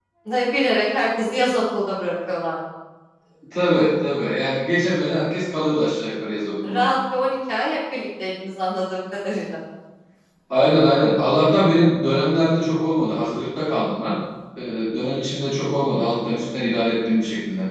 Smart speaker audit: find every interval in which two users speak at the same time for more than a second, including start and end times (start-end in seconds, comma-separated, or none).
none